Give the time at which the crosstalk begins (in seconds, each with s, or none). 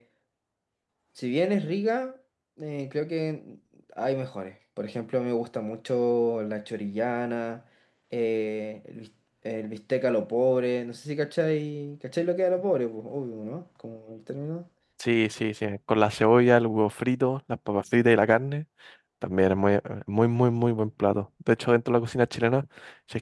none